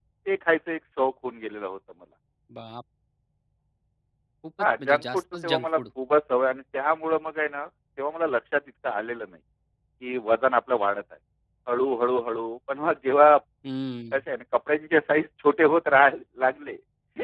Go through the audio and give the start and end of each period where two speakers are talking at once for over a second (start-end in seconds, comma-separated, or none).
4.6-5.8